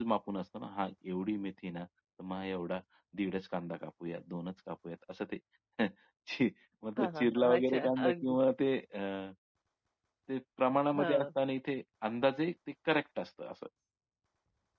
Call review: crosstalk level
present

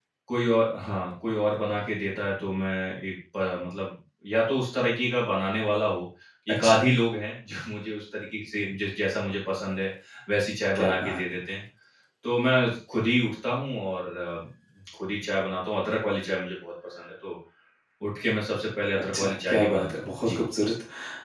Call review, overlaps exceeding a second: present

